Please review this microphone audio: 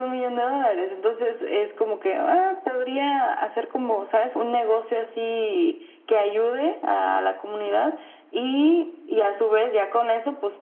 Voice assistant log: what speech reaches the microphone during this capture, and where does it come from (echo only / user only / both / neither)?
echo only